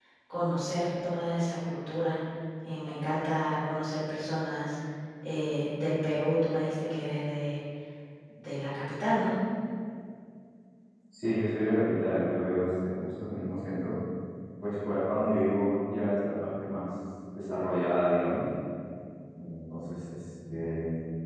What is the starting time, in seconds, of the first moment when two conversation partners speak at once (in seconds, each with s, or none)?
none